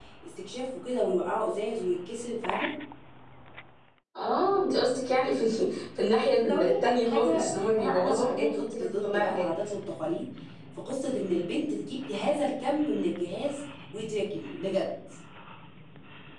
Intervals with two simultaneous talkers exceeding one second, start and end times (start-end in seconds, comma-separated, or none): 6.3-9.5